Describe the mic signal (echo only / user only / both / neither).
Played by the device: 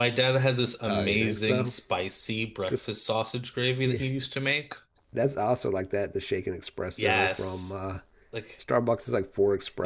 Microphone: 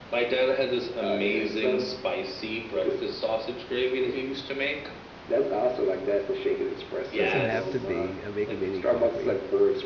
both